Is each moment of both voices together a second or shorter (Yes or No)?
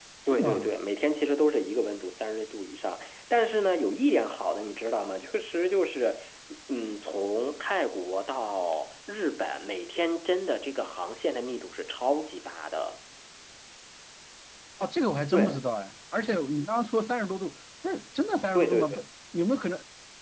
Yes